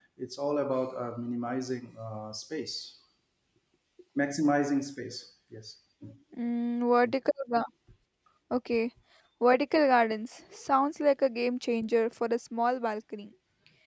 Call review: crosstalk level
none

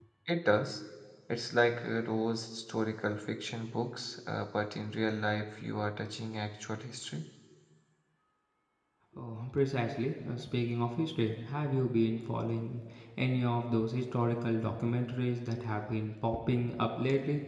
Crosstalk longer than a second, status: none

